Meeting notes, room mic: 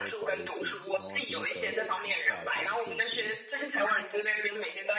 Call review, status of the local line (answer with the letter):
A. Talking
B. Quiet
A